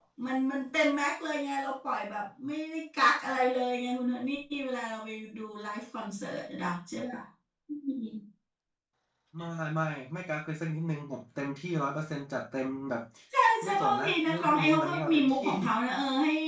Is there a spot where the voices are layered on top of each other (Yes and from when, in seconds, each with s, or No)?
Yes, from 13.6 s